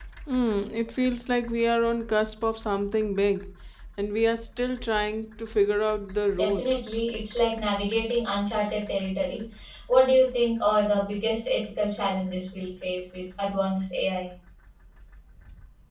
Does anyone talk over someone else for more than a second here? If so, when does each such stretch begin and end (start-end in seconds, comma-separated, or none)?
none